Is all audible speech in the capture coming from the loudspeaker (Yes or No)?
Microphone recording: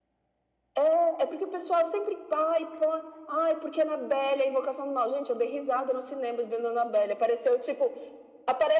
Yes